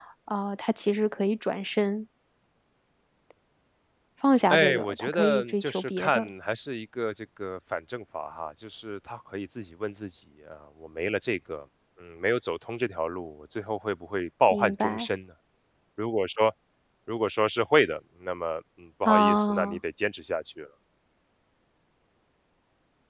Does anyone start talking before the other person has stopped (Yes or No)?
Yes